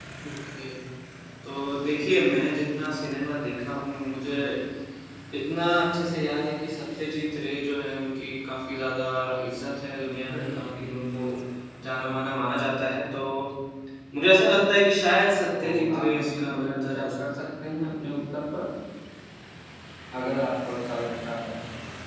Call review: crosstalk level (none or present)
present